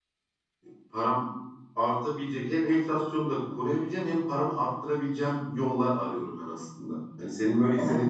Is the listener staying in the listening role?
No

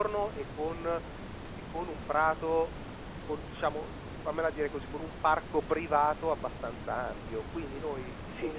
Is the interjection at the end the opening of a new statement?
Yes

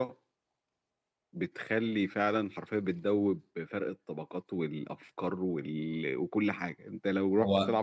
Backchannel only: Yes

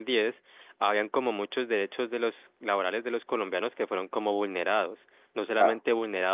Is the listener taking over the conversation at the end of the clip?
No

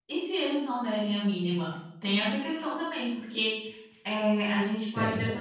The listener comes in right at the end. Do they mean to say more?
No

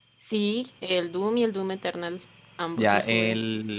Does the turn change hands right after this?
Yes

